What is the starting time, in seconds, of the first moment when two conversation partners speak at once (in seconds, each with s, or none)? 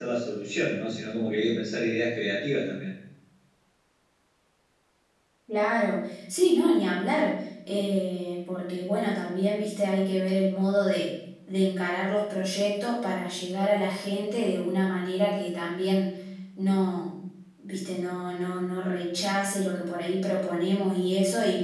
none